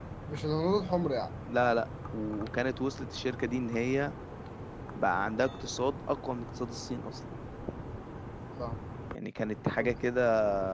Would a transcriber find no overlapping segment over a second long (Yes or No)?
Yes